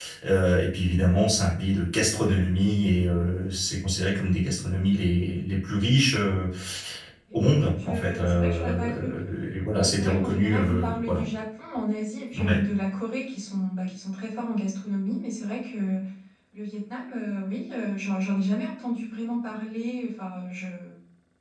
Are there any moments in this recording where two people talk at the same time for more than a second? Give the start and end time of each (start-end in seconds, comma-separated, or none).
7.8-9.1, 9.8-11.2